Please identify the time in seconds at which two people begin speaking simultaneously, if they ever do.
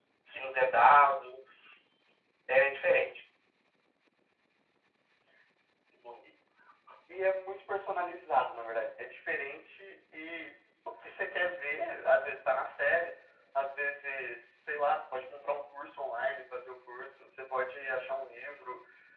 none

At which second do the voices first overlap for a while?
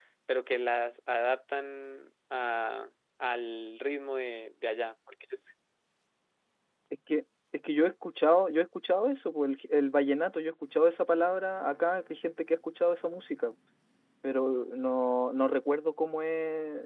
none

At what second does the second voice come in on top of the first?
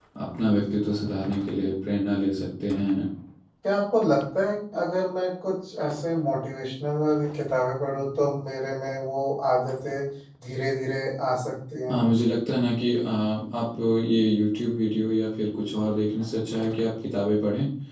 none

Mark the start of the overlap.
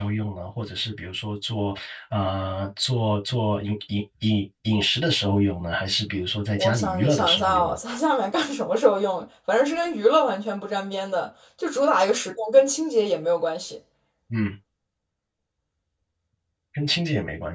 6.6 s

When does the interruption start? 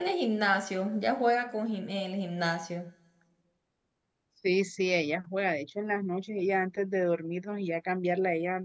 none

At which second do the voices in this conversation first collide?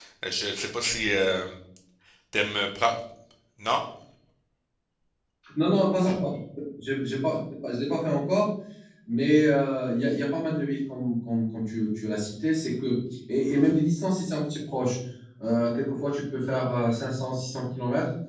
none

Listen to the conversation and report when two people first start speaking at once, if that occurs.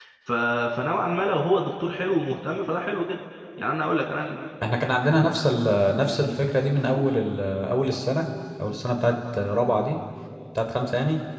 none

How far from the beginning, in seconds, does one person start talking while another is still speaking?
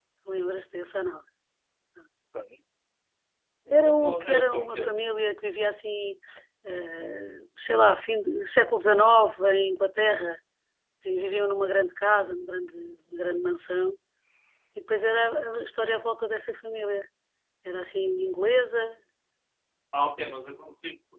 3.7 s

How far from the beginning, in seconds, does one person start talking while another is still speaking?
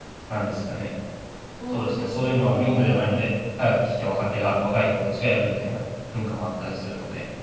1.7 s

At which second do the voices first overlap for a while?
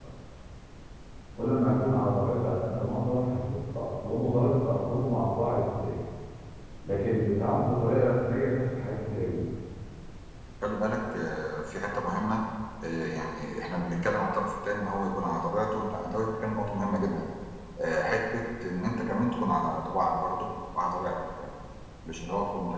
none

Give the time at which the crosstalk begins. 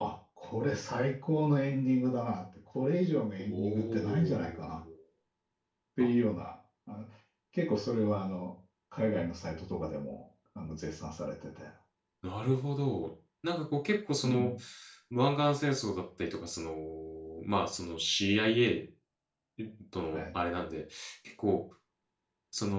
3.4 s

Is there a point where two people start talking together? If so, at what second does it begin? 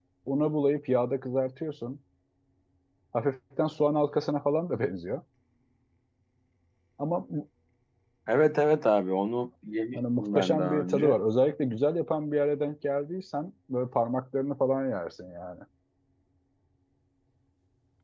9.9 s

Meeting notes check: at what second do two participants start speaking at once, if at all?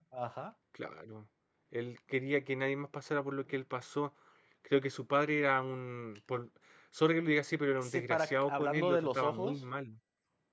7.7 s

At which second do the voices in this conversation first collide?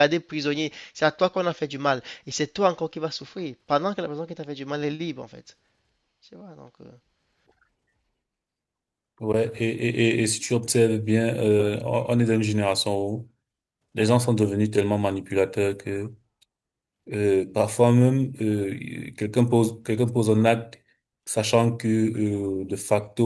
none

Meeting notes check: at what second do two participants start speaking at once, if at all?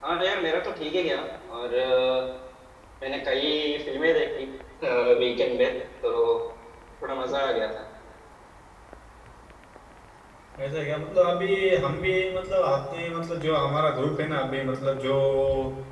none

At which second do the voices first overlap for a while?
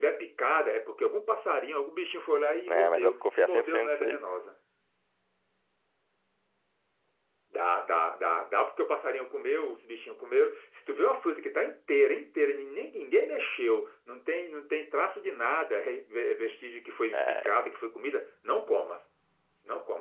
2.7 s

